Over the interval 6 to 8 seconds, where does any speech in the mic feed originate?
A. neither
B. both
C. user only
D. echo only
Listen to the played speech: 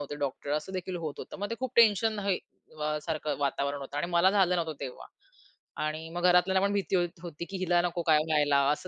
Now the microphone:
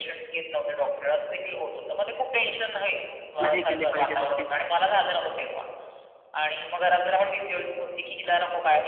D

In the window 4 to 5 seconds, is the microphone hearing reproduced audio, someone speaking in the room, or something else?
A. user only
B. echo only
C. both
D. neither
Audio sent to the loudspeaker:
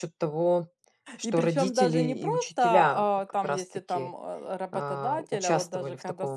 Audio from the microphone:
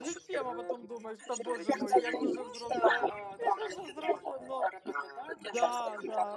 C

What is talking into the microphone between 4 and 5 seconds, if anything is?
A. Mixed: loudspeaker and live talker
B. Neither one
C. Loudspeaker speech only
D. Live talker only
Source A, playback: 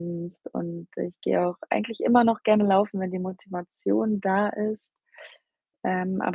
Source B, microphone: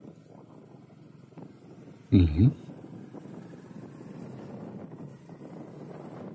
B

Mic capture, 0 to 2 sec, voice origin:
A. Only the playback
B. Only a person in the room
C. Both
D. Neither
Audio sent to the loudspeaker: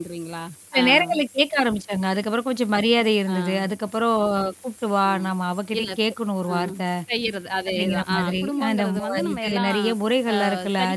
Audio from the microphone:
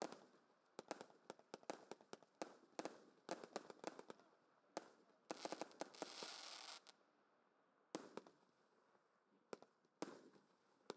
D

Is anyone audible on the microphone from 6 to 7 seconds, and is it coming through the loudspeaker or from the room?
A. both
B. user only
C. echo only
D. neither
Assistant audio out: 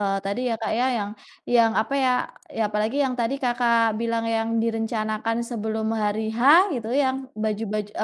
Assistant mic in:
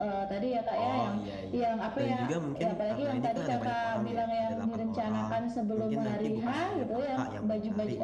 A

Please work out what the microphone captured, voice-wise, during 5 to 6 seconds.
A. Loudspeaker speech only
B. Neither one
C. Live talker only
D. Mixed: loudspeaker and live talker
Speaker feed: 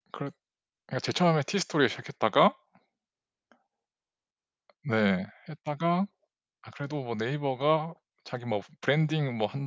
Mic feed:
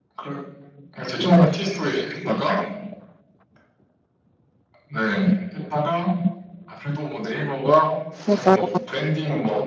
A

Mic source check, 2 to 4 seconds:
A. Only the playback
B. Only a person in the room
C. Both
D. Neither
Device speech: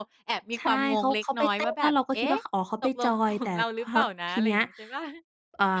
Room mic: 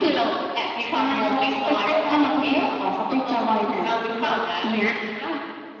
A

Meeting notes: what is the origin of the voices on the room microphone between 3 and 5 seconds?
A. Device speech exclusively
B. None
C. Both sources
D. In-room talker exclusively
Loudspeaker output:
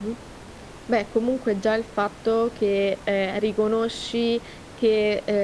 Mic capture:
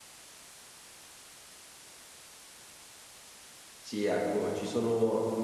D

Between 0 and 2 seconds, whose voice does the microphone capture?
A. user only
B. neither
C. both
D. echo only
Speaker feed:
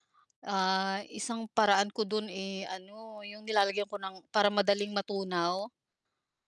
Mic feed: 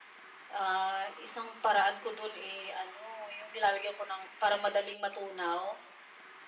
D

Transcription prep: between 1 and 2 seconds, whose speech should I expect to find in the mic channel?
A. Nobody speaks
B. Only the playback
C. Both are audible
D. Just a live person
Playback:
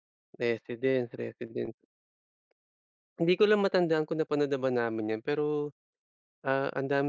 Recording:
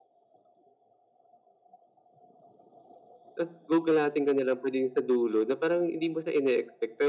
A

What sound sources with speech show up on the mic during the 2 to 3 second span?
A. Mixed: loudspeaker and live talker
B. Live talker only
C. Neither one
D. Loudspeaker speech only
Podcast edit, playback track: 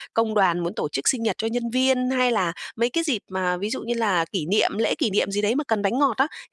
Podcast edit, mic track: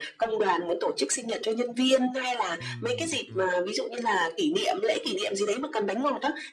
A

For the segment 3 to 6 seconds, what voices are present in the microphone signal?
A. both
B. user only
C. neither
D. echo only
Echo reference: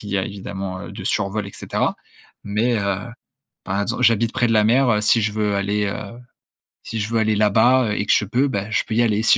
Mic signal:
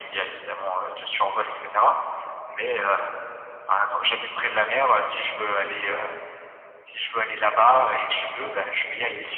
D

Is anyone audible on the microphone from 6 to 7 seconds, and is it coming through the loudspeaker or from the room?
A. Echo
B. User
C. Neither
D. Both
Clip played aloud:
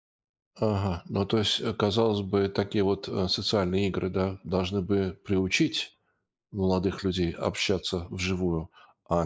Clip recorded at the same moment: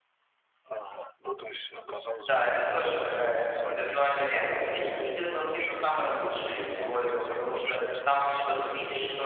D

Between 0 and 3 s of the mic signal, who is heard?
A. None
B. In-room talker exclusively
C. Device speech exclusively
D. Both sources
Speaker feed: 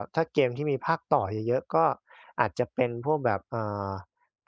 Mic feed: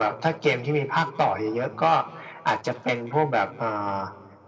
C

